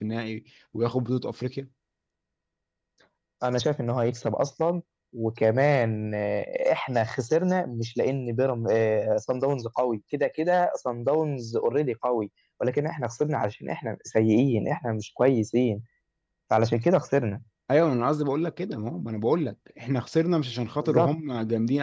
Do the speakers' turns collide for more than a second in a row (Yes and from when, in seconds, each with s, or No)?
No